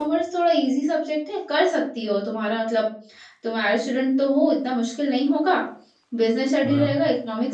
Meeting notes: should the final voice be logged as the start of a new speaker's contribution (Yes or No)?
No